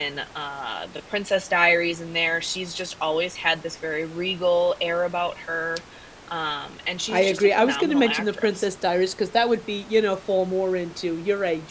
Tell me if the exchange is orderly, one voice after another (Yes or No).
No